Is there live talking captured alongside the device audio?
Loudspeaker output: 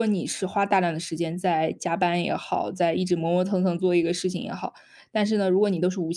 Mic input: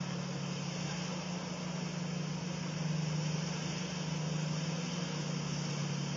No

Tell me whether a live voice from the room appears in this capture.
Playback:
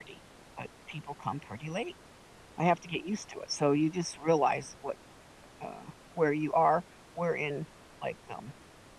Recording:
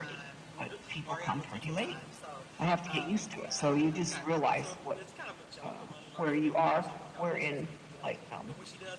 Yes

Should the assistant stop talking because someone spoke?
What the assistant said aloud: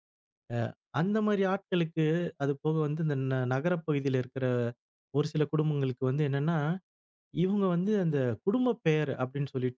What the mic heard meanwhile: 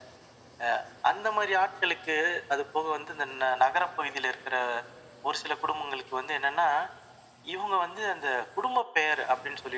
No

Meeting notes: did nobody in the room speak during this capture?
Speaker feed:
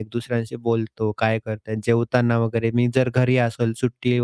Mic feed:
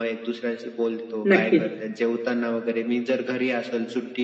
No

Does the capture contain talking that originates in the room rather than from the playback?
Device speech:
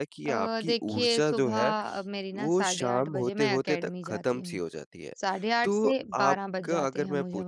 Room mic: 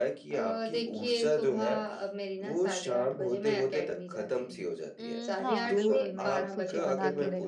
Yes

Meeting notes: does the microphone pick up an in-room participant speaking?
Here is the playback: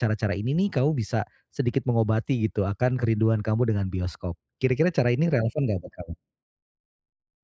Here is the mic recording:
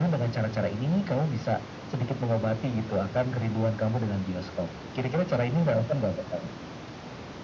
No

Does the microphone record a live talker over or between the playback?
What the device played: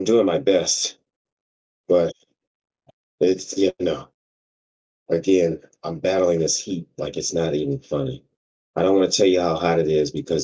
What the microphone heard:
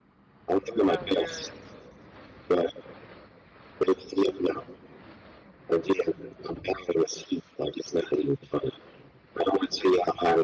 Yes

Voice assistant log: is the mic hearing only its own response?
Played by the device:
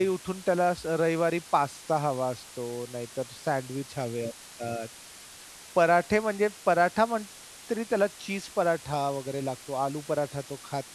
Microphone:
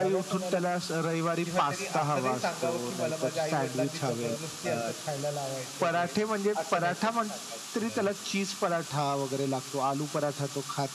No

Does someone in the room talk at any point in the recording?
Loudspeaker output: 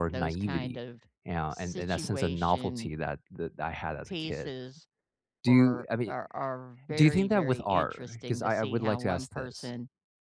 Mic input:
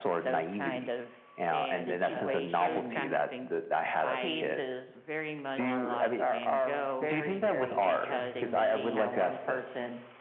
Yes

